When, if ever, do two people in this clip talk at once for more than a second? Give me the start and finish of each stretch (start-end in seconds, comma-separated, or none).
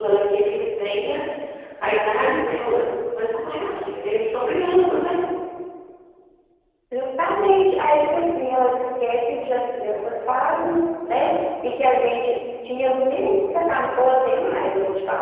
none